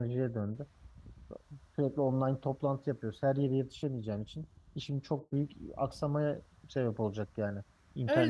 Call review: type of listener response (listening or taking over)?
taking over